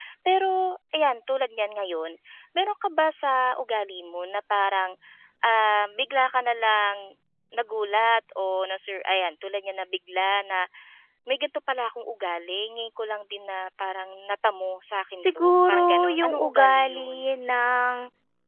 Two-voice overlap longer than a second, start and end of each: 15.2-17.2

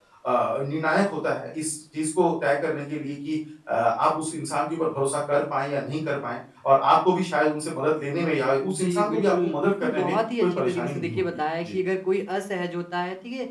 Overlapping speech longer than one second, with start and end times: 8.6-11.2

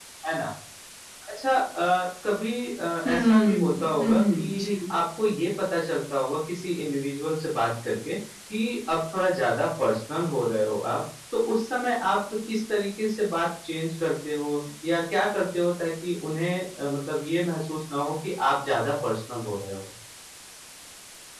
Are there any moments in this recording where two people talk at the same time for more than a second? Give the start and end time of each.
3.0-4.5

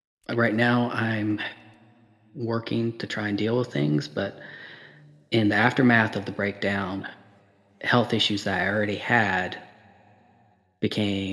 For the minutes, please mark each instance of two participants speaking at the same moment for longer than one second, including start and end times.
none

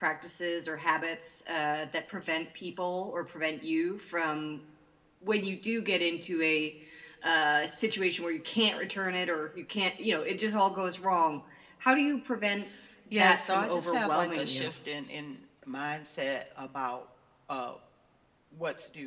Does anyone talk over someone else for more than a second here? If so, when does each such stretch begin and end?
13.1-14.7

